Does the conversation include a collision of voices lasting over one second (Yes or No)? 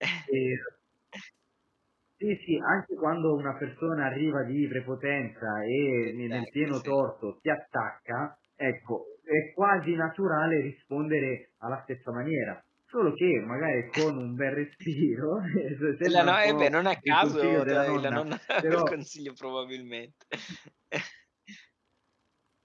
Yes